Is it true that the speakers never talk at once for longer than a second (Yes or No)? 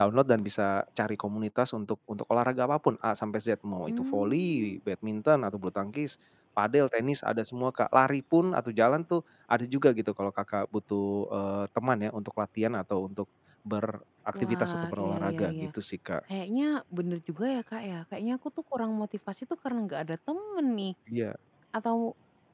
No